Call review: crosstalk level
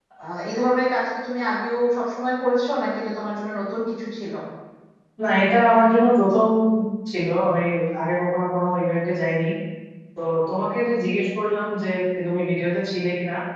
none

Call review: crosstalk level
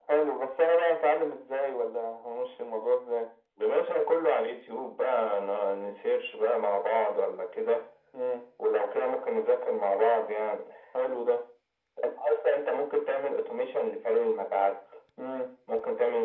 none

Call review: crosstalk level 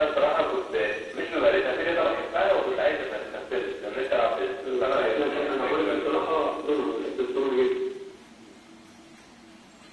present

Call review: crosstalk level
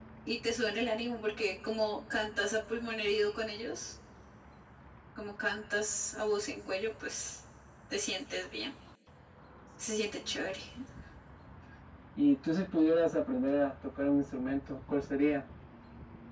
none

